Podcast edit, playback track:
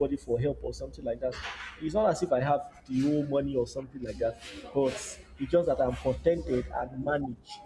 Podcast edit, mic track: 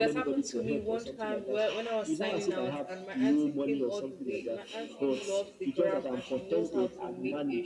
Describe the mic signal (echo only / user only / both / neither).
both